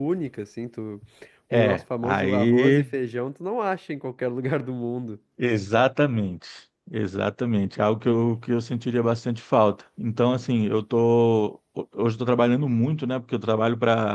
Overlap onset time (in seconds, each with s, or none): 1.5 s